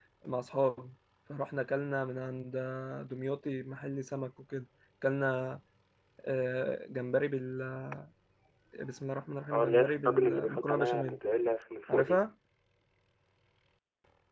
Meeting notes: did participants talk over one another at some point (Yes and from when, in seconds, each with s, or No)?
Yes, from 9.5 s